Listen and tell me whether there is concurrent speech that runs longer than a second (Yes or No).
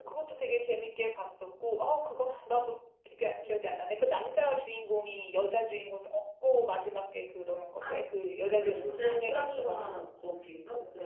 Yes